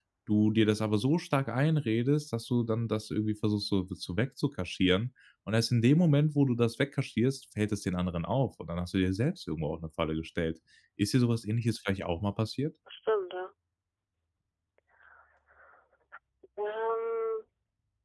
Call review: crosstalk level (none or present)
none